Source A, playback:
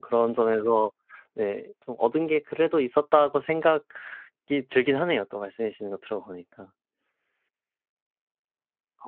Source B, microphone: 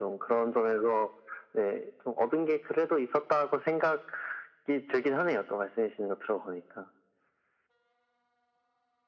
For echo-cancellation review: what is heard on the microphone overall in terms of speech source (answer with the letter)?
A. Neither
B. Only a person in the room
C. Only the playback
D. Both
C